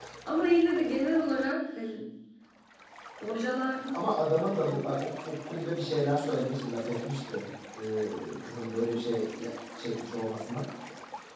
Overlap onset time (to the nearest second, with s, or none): none